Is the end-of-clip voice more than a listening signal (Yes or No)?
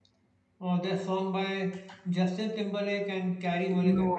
Yes